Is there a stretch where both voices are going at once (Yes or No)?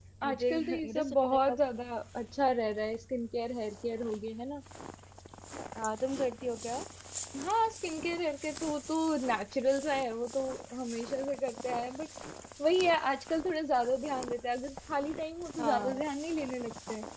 Yes